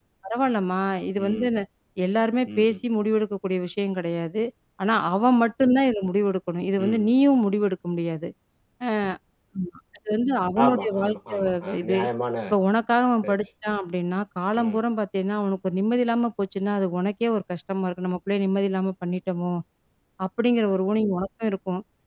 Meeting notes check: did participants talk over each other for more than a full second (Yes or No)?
Yes